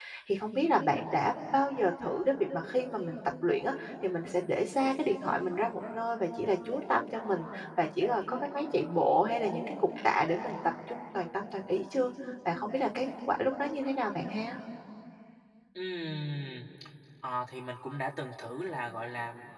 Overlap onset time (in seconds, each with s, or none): none